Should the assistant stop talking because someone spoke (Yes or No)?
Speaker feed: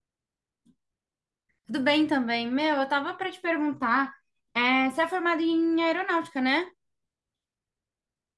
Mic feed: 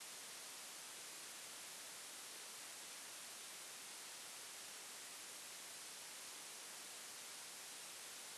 No